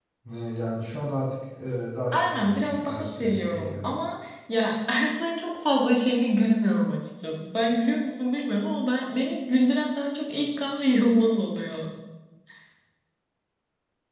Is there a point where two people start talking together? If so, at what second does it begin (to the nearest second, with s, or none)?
2 s